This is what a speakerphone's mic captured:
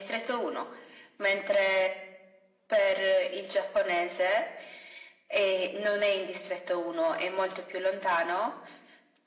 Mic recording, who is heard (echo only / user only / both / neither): echo only